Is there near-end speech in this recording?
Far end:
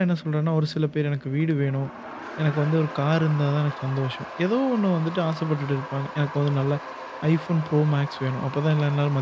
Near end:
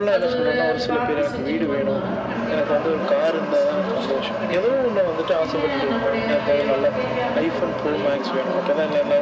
Yes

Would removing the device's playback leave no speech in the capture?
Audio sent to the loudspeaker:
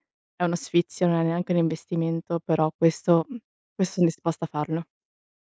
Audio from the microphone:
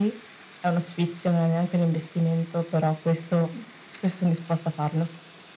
Yes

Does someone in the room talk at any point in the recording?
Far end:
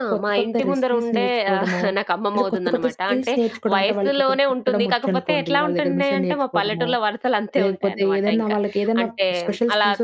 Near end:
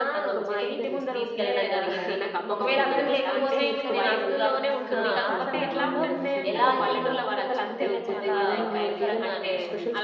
Yes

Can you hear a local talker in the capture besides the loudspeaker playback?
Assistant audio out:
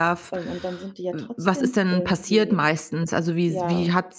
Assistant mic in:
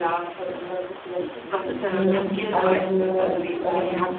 Yes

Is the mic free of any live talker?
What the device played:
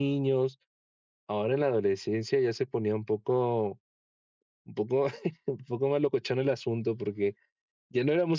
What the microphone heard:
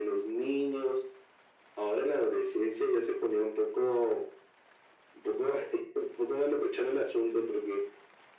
Yes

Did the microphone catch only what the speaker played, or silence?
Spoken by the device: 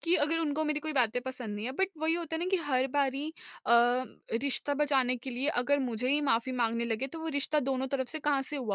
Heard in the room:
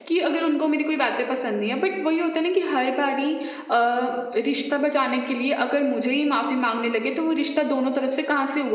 Yes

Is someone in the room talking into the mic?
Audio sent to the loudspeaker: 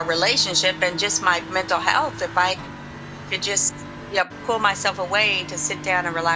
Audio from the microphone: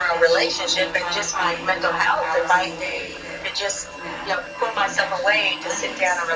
Yes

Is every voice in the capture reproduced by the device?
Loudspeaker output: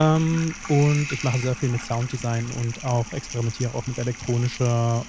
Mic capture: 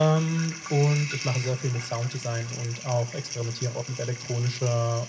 Yes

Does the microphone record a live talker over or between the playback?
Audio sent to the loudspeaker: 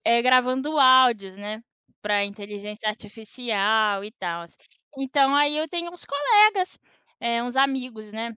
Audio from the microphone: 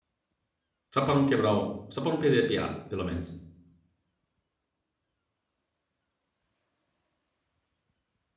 Yes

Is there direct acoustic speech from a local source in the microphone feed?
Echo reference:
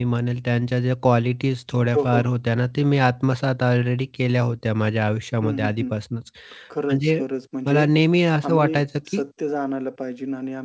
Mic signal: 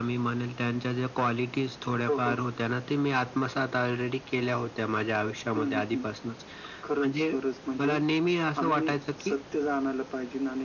No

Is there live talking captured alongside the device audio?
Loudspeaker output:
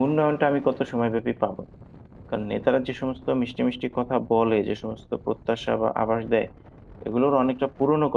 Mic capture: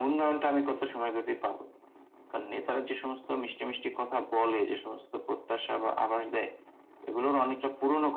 No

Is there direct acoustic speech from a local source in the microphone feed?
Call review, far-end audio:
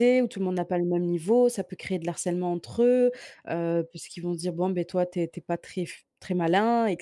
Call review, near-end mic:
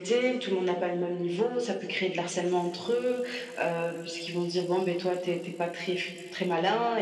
No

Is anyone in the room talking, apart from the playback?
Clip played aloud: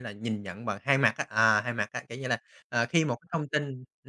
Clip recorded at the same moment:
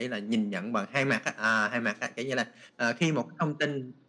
No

